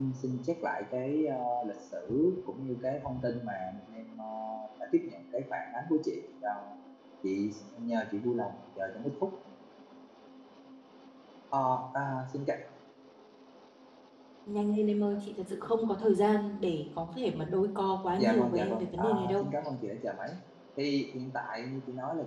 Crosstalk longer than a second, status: present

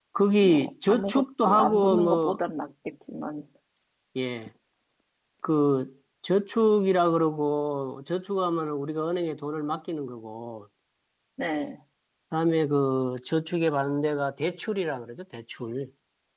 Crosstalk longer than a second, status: present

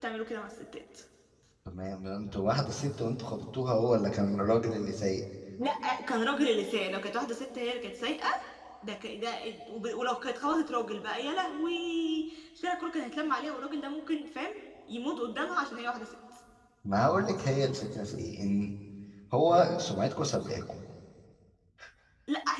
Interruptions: none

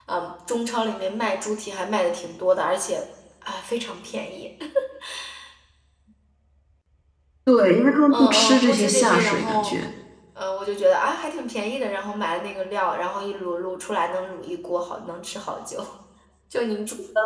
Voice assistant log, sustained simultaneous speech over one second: present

